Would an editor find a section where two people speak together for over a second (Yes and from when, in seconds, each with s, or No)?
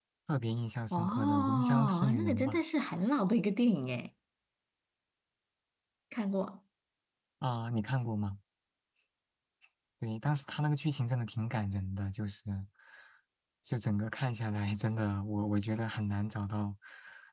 Yes, from 0.9 s